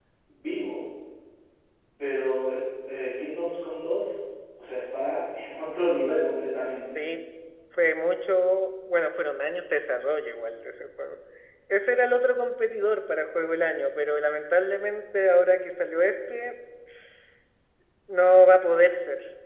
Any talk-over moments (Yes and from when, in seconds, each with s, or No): No